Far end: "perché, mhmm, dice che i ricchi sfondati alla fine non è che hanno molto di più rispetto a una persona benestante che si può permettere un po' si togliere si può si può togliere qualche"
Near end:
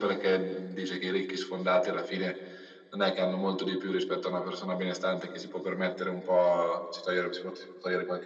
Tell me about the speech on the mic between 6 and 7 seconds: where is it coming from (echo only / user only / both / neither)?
echo only